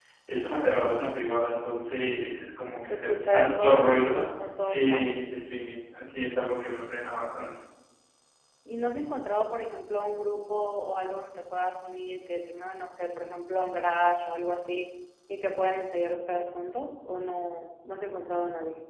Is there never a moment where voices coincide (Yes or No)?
No